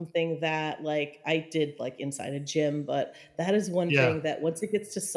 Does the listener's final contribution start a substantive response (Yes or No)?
No